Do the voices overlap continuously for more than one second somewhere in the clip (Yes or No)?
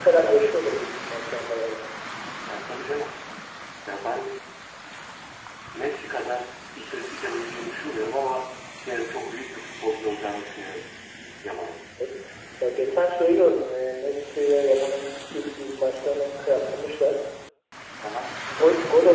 No